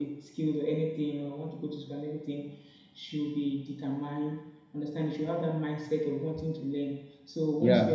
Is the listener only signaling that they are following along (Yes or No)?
Yes